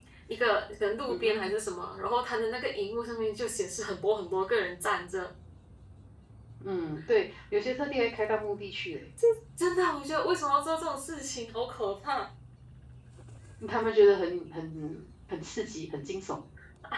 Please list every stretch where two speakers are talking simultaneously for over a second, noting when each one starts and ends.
none

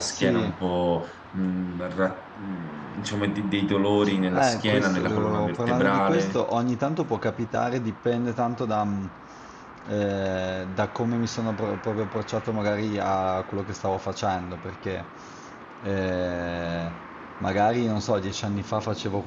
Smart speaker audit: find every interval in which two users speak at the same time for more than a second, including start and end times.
4.3-6.4

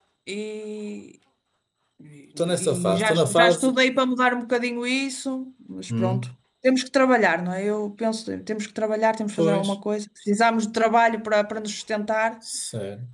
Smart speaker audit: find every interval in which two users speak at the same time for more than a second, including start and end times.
2.4-3.7

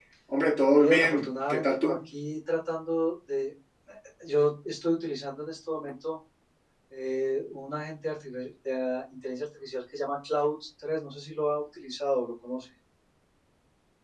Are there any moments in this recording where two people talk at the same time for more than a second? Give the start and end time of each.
0.7-2.0

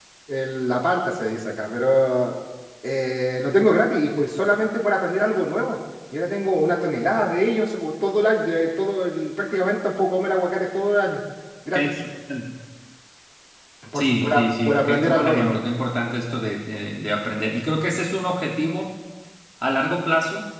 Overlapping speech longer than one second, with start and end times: 13.9-15.6

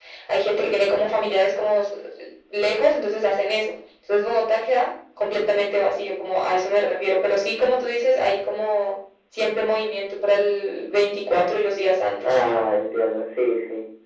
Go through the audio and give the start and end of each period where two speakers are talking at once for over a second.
none

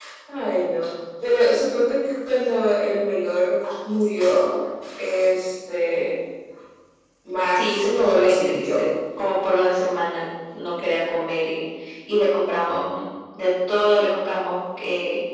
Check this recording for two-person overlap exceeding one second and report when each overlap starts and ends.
7.5-8.9

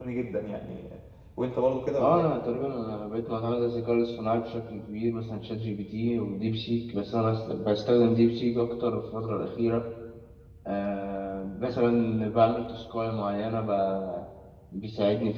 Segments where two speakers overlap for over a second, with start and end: none

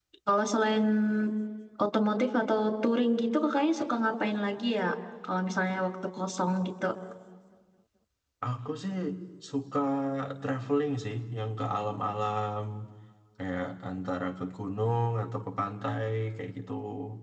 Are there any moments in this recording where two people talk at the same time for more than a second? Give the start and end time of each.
none

